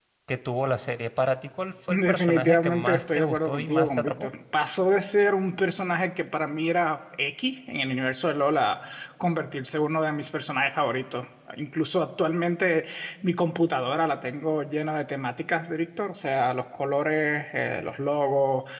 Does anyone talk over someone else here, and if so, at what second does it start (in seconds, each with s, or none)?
1.9 s